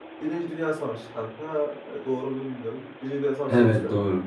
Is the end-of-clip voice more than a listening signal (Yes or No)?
No